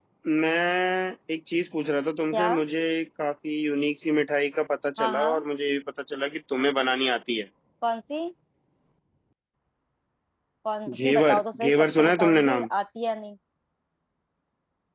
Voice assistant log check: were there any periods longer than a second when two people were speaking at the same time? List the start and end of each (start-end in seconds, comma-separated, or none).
10.9-12.7